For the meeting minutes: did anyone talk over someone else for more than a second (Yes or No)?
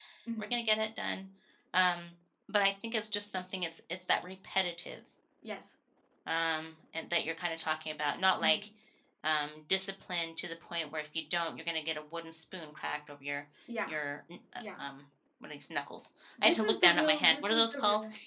Yes